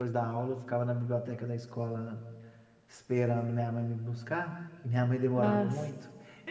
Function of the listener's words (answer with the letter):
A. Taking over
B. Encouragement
B